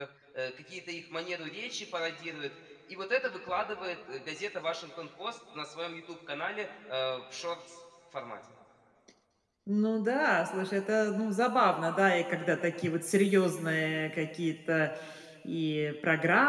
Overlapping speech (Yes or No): No